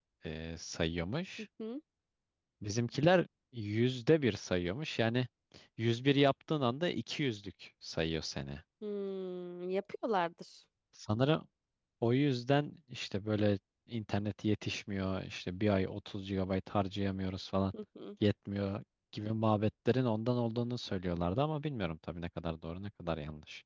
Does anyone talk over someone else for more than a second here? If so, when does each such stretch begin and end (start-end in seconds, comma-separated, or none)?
none